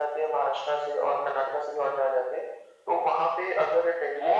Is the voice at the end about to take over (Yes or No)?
Yes